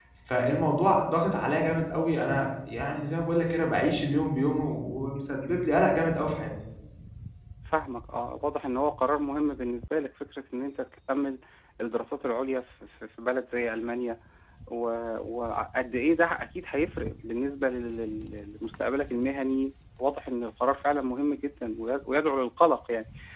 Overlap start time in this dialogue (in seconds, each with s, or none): none